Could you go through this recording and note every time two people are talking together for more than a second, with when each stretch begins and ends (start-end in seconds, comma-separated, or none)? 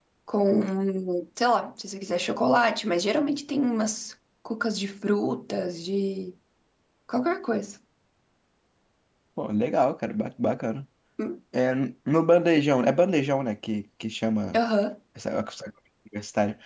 none